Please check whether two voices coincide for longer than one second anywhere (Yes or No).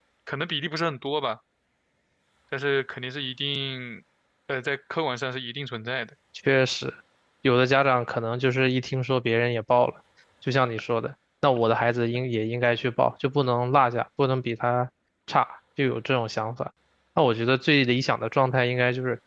No